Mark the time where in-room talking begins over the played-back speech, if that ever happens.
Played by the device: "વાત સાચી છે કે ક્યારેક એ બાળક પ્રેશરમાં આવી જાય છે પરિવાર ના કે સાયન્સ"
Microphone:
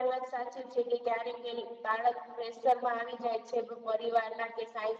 none

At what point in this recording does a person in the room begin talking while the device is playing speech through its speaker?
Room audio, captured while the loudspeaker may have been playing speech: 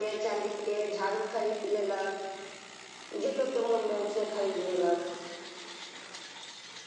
none

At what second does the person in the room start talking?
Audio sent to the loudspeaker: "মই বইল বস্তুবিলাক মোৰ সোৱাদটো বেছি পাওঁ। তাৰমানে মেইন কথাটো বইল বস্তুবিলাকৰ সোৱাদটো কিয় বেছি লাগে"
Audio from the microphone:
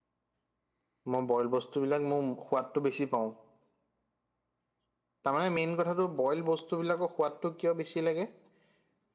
none

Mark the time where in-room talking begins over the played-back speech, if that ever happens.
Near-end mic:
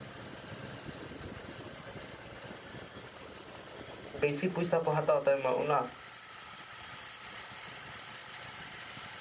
4.2 s

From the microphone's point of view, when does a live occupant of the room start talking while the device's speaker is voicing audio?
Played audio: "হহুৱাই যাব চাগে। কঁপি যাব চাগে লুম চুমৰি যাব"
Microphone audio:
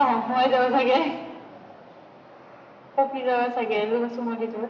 none

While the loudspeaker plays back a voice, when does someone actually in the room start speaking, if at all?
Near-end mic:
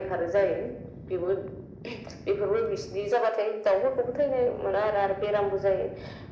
none

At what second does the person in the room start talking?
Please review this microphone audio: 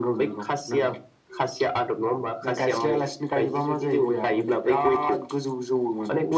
none

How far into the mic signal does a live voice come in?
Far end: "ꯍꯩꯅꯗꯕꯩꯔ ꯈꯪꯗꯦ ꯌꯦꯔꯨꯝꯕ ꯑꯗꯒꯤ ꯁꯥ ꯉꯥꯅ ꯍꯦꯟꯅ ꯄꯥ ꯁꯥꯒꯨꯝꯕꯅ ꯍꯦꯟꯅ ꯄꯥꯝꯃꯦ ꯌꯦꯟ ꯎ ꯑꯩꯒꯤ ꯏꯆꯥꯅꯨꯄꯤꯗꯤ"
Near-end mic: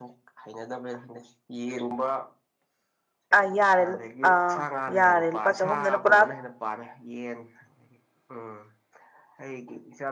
3.4 s

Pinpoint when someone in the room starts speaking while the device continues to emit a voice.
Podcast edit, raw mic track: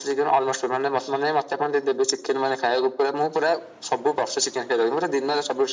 none

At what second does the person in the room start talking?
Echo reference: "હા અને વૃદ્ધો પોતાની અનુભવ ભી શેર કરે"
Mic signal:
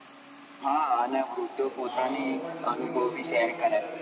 1.2 s

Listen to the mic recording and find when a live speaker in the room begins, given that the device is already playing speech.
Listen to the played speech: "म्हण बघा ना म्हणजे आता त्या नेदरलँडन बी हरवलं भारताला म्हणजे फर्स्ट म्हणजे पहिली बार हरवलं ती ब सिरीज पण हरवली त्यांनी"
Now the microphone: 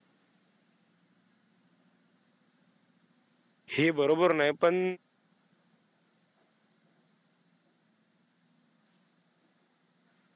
3.8 s

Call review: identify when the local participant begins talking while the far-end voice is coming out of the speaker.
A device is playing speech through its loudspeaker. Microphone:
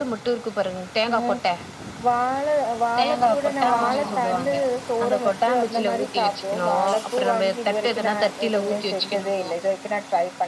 3.7 s

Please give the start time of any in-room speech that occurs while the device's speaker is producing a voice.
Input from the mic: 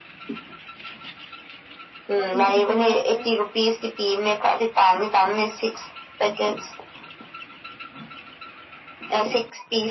2.1 s

